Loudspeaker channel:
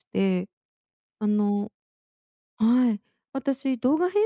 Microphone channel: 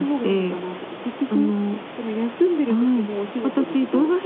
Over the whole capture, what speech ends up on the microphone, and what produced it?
both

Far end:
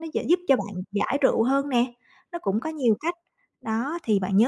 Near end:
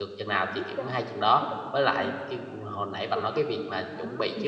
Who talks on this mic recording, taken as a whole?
both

